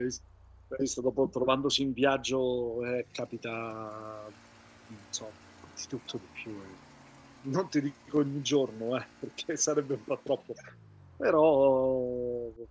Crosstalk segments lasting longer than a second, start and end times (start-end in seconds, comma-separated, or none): none